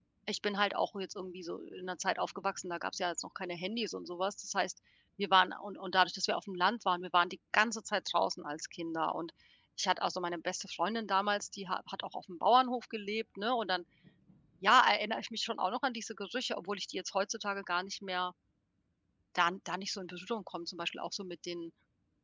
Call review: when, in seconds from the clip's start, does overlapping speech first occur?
none

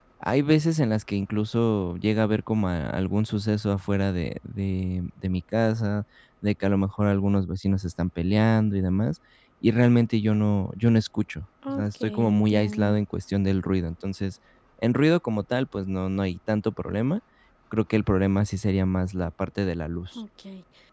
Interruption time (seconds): 12 s

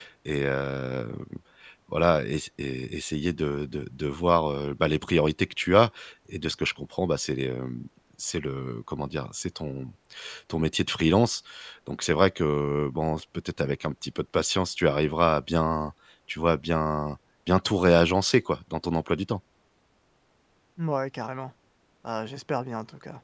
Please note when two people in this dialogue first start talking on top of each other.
none

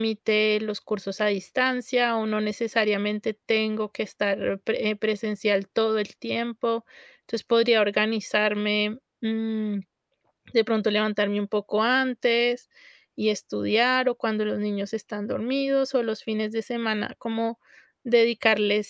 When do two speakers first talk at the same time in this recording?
none

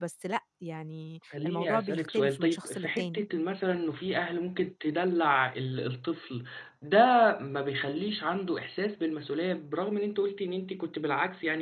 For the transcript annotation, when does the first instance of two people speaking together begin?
1 s

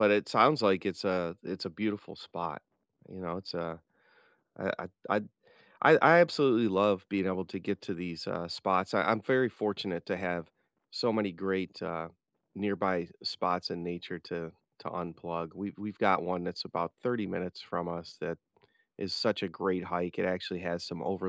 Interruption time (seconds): none

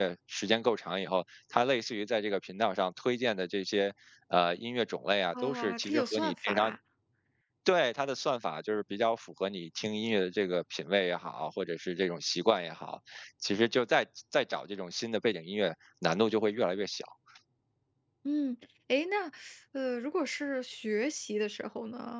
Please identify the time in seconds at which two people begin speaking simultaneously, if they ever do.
5 s

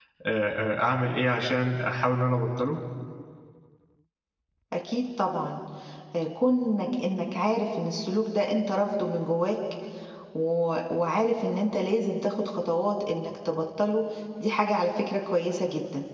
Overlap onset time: none

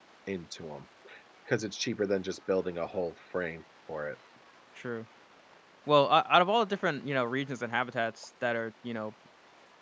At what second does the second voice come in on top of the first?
none

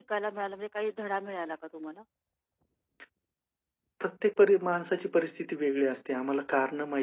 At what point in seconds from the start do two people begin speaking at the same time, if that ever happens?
none

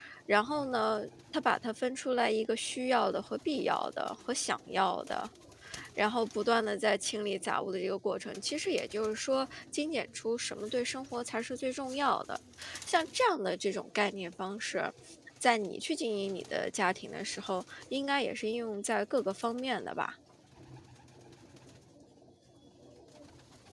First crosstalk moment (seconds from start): none

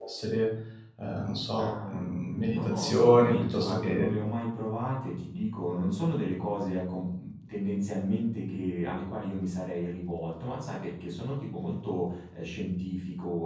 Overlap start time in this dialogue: 2 s

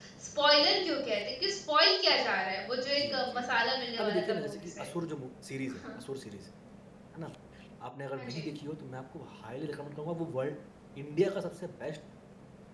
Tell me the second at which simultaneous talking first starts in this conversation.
3 s

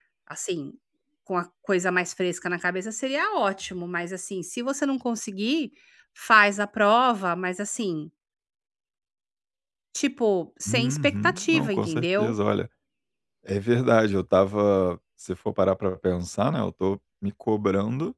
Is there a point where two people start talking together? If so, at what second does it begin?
11 s

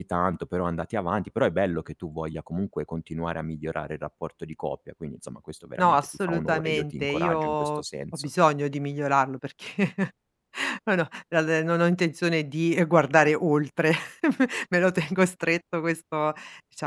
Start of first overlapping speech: 6 s

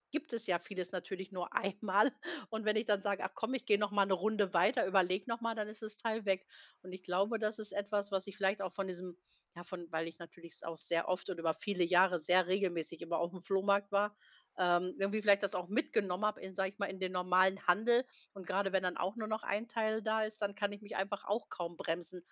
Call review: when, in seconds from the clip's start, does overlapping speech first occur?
none

